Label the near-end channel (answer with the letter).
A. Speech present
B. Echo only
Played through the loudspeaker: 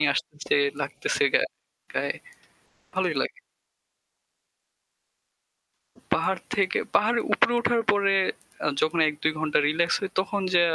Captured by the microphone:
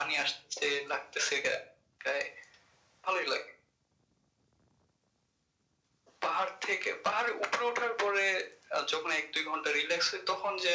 B